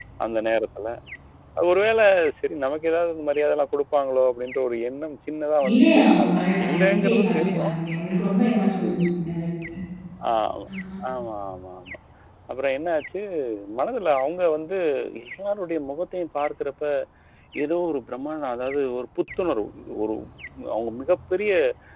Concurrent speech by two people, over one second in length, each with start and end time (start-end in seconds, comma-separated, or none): 5.7-7.7